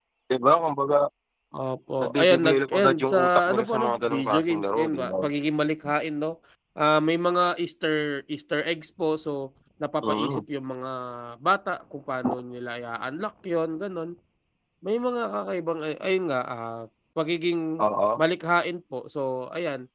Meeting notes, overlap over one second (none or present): present